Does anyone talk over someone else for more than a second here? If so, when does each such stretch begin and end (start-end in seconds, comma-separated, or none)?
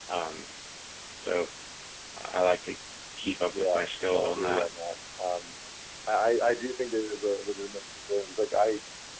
3.5-4.7